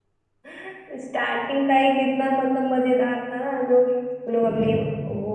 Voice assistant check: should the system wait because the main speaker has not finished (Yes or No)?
Yes